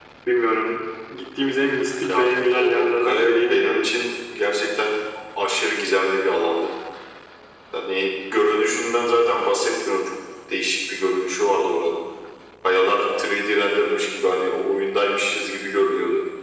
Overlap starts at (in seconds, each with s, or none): 2.1 s